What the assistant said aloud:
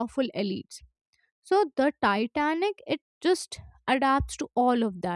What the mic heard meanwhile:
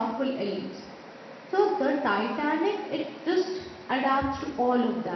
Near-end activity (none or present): none